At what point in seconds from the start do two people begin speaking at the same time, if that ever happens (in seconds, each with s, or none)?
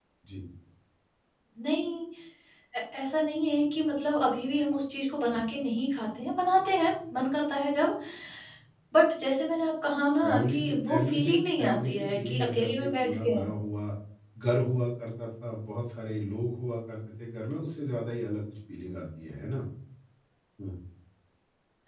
10.2 s